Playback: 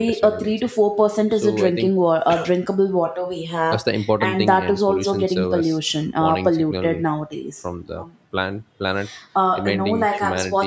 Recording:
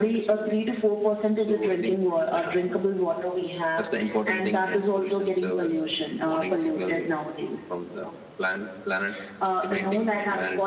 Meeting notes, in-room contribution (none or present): none